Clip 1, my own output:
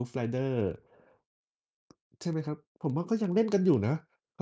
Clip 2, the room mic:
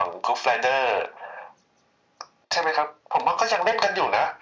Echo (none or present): present